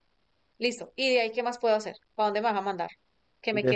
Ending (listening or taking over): listening